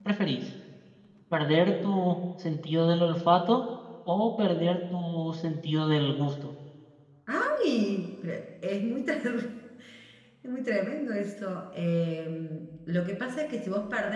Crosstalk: none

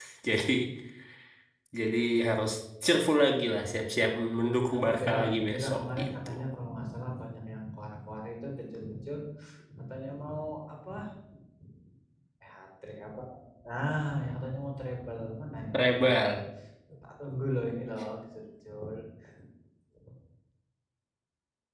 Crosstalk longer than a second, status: present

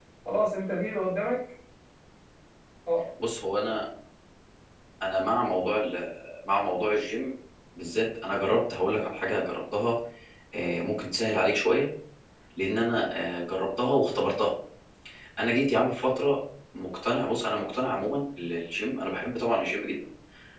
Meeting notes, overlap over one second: none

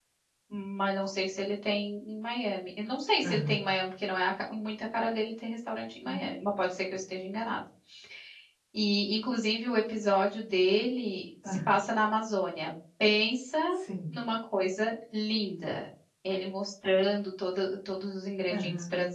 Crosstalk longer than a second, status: none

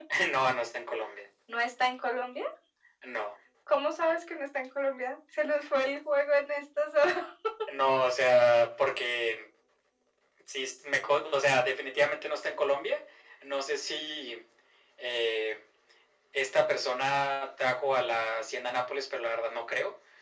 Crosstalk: none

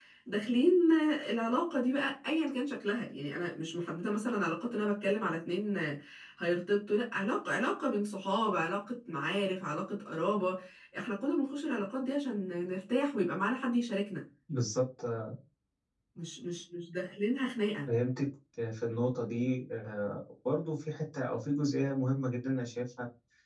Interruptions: none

